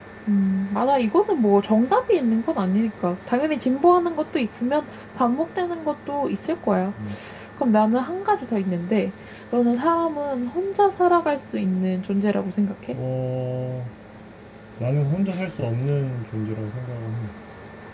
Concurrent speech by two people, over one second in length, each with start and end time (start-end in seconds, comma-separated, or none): none